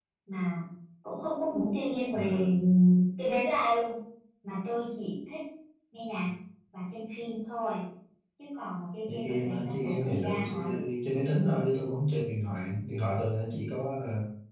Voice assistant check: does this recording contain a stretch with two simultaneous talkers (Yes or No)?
Yes